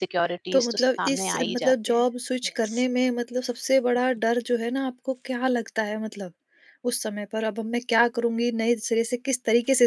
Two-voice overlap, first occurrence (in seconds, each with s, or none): 0.5 s